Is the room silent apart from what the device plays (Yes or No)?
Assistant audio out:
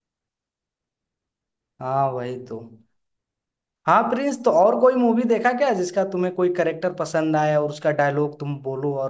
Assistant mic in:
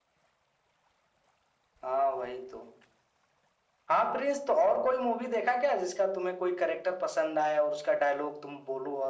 Yes